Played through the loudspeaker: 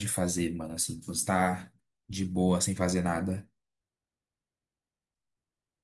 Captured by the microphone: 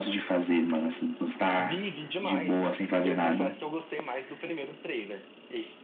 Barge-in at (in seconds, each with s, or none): 1.6 s